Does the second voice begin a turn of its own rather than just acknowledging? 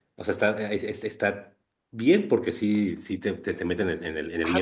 Yes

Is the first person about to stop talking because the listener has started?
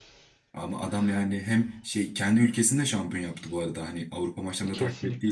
Yes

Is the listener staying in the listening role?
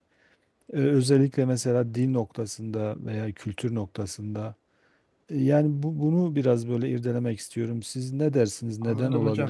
No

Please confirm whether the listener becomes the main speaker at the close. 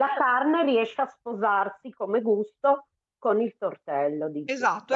Yes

